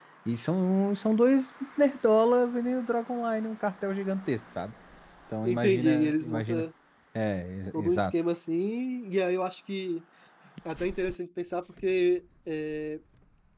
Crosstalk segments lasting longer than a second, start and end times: 5.4-6.6

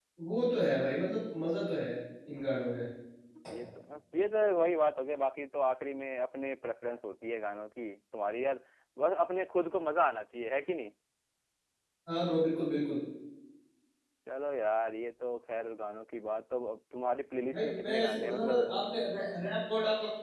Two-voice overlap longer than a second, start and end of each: 17.5-18.7

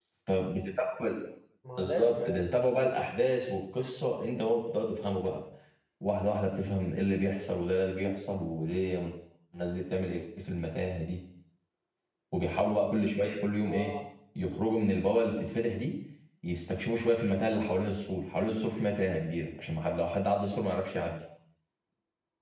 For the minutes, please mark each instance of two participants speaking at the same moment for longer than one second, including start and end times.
1.8-3.1

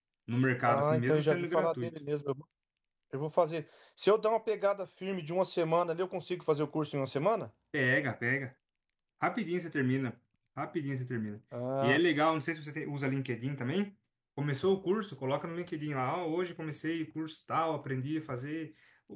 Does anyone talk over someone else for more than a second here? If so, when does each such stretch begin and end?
0.7-1.9

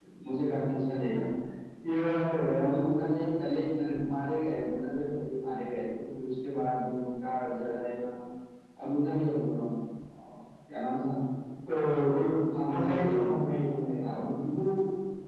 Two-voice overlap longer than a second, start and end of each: 12.7-14.0

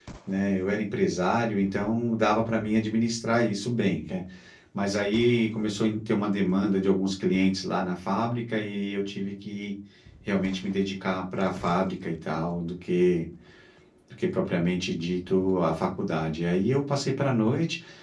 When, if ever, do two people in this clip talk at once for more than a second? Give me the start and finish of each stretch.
none

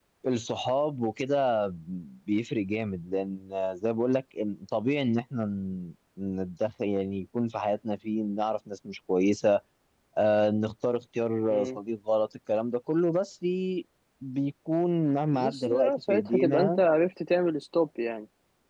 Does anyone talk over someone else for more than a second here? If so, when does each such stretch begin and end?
15.3-16.8

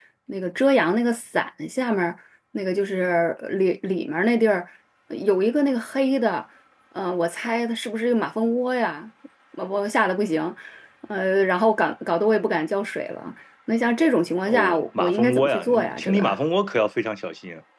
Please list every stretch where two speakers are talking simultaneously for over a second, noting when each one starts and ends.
14.4-16.2

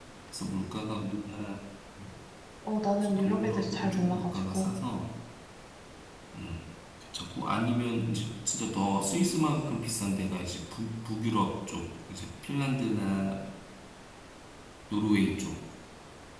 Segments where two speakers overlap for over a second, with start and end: 3.0-4.7

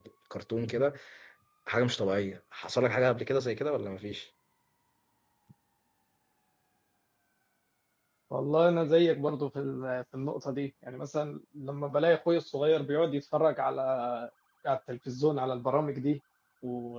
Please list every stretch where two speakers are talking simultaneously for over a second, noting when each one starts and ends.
none

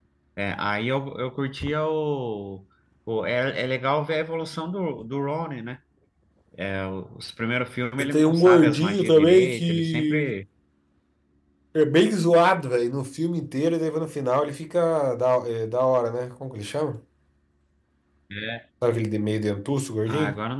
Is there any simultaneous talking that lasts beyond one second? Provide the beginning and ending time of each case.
8.0-10.3

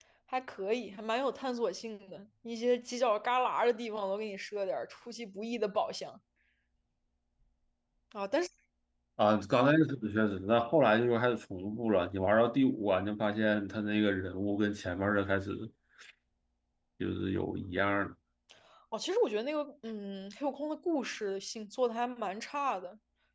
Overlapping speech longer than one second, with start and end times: none

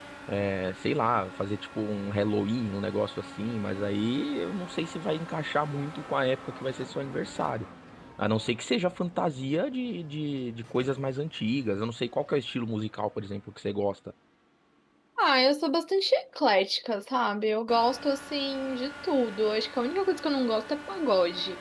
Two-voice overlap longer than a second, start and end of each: none

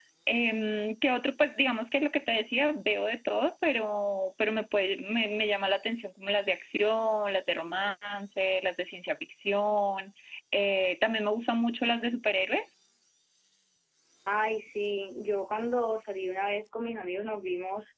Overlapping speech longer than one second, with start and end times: none

